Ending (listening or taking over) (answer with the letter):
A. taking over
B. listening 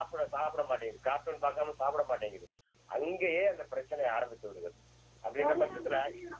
A